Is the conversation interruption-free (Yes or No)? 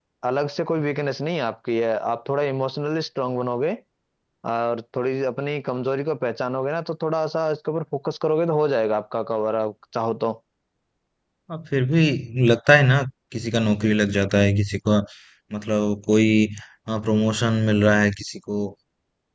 Yes